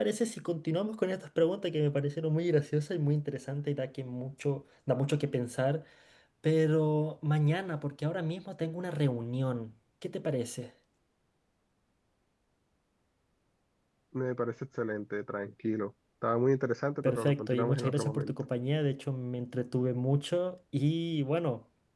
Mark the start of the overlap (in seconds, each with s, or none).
17.0 s